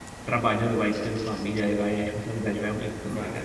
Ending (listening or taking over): taking over